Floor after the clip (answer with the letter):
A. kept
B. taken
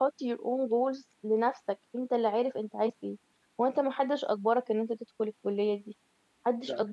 A